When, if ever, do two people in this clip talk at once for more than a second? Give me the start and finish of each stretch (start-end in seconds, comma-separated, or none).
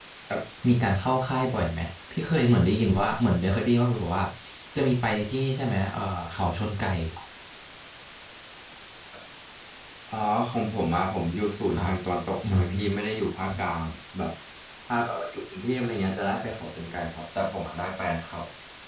none